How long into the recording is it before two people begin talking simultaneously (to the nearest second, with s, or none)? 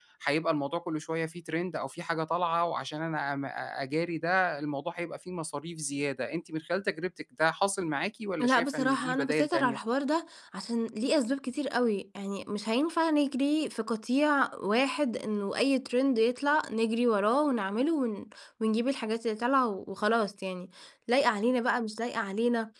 8 s